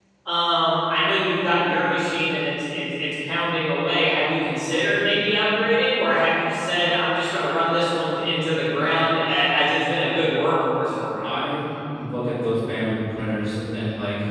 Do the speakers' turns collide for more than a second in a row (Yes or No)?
No